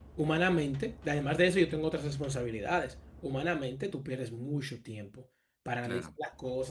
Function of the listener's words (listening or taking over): listening